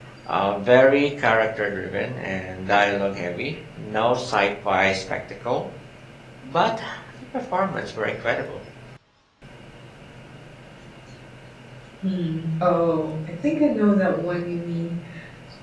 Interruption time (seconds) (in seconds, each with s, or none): none